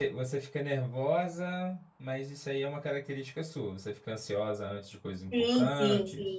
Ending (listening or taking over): taking over